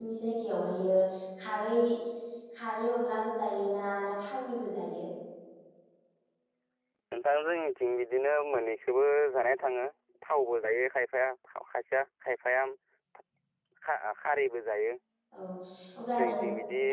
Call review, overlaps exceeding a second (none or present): none